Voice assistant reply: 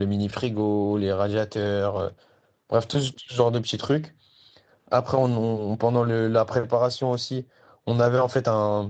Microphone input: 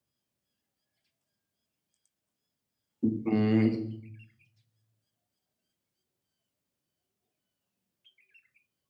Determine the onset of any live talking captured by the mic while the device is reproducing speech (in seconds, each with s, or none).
3.0 s